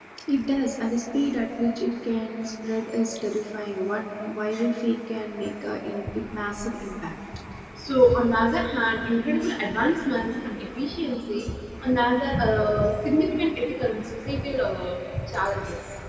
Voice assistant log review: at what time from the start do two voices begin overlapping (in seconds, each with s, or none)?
none